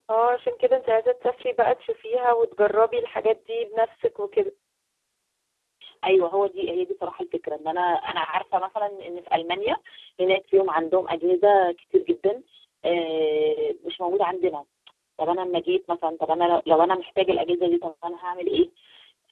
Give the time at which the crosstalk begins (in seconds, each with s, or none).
none